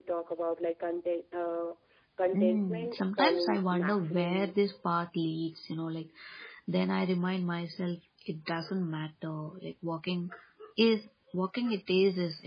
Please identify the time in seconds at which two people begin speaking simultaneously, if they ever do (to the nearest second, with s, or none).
2 s